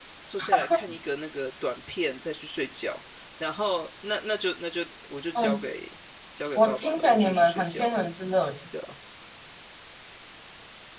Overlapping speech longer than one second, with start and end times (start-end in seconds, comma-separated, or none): 6.5-8.0